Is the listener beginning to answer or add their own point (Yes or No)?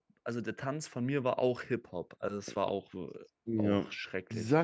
Yes